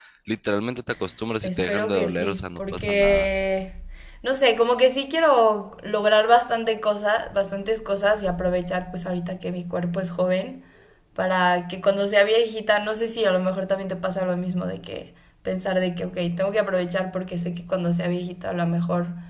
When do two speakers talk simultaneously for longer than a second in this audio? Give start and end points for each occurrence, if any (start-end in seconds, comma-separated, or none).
1.4-3.3